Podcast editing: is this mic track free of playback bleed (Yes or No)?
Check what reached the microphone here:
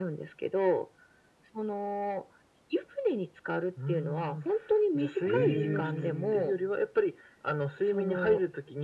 No